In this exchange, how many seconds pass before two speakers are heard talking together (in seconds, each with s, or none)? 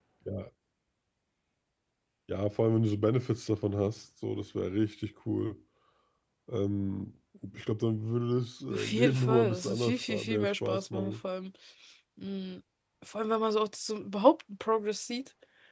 8.7 s